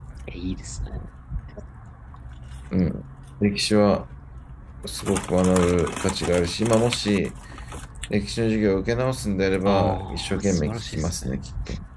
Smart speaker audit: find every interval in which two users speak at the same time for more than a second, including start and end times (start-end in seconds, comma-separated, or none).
9.7-11.3